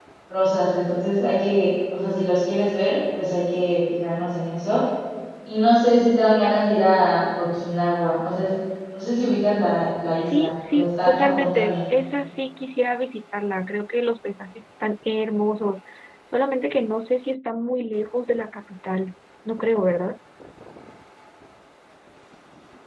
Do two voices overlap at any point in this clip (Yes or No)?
Yes